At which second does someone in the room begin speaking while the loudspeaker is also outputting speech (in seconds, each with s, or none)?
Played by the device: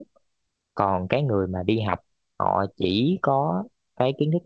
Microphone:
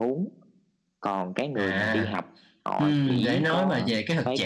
1.5 s